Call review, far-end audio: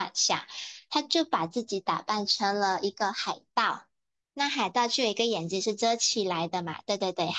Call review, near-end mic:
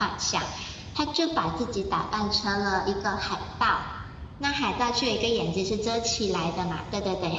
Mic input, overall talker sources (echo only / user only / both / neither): echo only